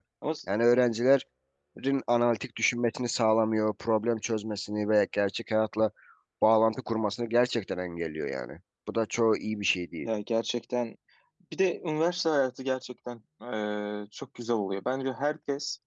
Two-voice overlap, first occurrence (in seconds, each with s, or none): none